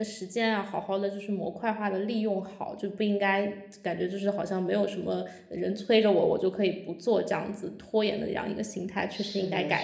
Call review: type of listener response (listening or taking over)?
taking over